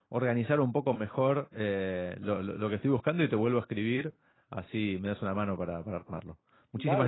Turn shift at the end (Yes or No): Yes